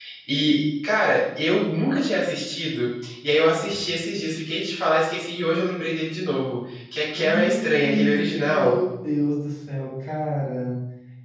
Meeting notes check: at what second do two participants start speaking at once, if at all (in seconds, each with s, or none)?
7.1 s